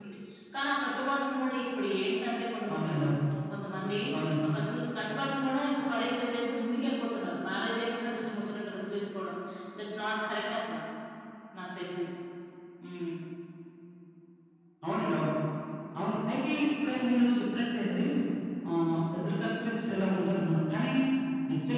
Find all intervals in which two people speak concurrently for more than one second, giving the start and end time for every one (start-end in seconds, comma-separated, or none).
none